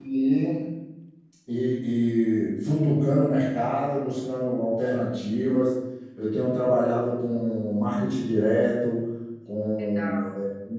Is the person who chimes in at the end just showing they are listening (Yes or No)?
Yes